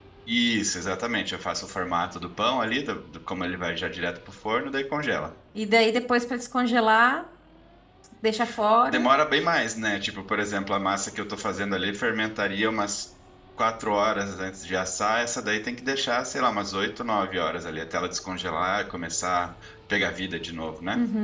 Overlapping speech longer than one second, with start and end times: none

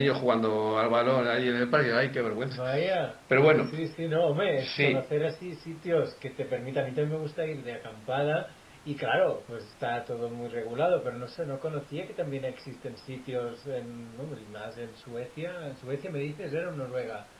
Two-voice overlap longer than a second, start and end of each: none

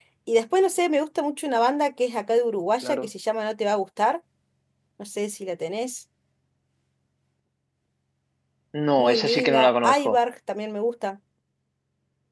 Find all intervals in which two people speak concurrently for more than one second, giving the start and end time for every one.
9.0-10.2

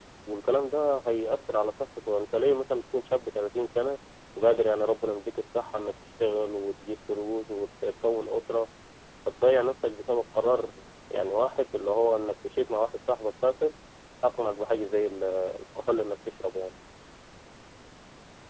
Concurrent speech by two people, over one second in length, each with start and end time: none

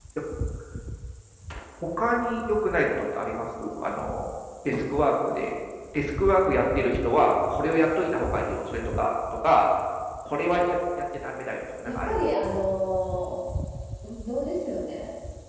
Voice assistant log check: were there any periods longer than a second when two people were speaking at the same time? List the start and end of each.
none

